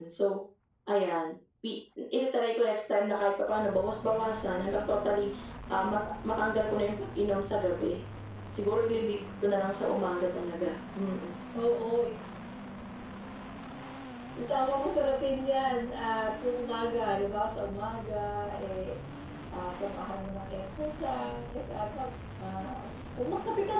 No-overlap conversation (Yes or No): Yes